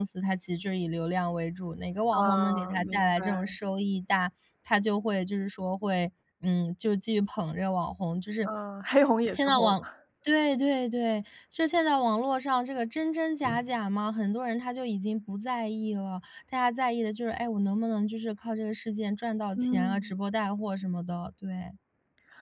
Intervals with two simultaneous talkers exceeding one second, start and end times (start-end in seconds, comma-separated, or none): 2.1-3.5